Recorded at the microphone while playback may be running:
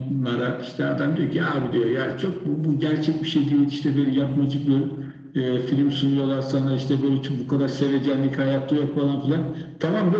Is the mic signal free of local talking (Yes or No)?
Yes